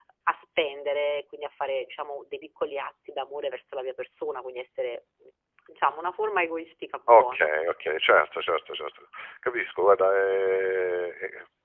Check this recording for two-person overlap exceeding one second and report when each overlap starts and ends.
none

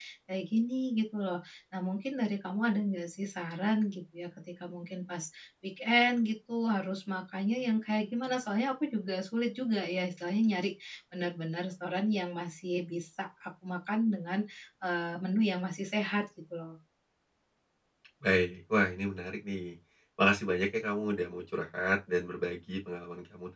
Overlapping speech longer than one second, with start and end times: none

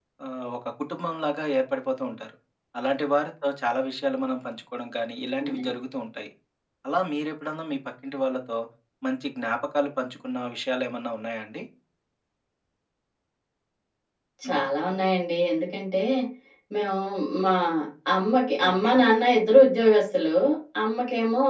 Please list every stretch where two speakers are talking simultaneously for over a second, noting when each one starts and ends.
none

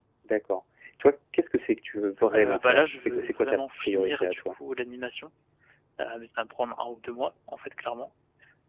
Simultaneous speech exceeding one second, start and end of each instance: 2.3-4.4

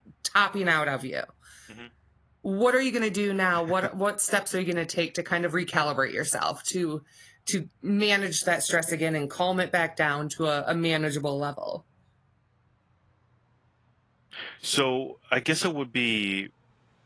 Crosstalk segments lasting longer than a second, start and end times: none

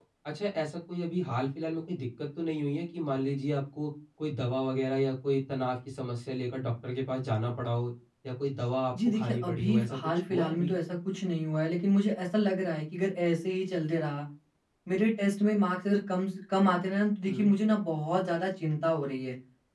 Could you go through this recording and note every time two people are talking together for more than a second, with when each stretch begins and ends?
9.1-10.7

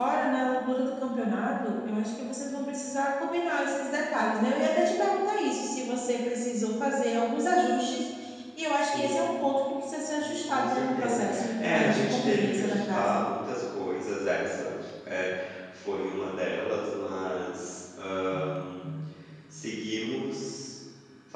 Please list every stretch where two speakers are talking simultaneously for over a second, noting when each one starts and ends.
10.2-13.2

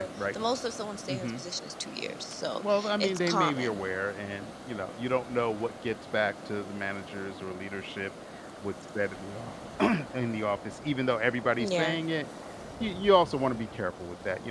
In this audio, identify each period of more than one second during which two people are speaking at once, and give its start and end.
2.5-3.8

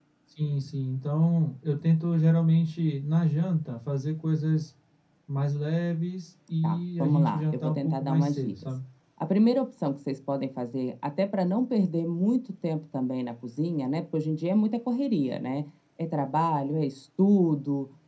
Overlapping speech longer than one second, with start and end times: 6.6-8.5

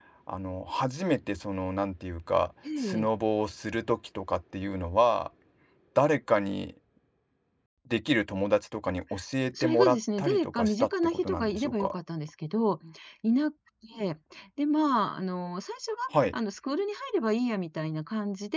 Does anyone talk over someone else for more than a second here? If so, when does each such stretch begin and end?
9.6-11.9

